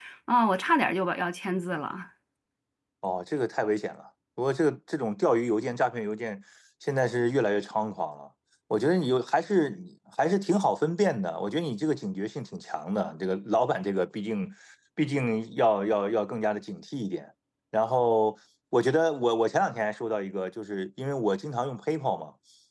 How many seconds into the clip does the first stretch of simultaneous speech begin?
none

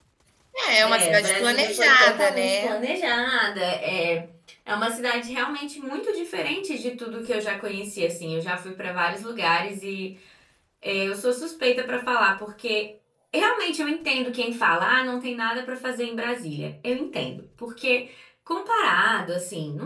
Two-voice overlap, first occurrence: 0.8 s

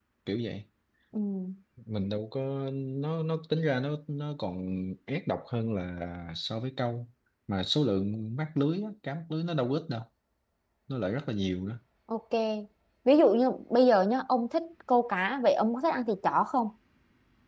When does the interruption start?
none

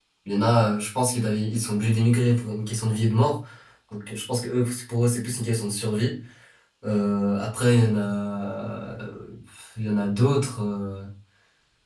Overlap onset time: none

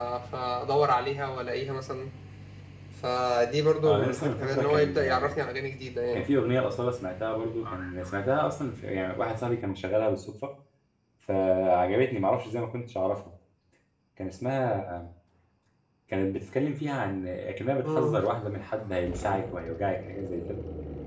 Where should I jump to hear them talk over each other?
3.8 s

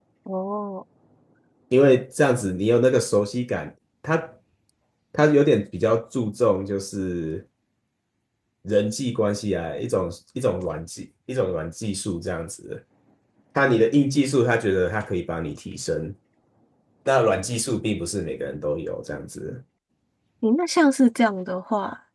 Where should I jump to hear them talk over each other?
none

